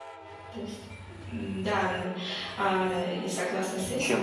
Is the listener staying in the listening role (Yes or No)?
No